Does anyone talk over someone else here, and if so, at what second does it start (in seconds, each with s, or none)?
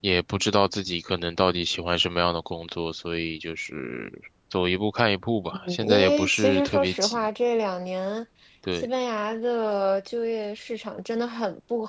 5.7 s